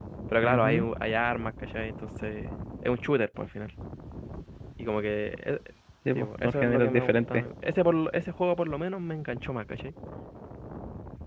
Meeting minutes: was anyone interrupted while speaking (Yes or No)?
Yes